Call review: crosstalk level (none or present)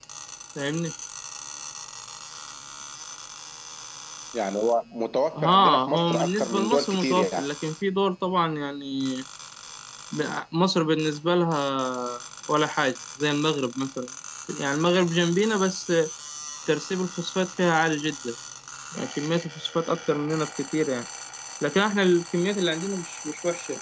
present